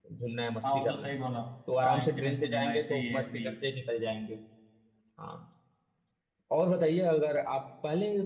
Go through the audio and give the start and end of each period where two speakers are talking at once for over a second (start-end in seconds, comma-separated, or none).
1.8-3.5